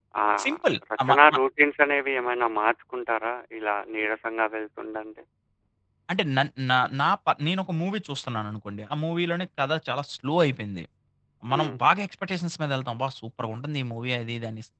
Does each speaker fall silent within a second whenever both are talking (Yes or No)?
Yes